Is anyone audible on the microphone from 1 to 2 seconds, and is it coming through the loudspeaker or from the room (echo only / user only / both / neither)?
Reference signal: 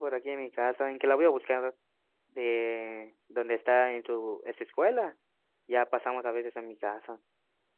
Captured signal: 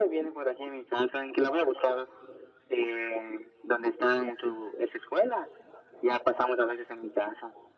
echo only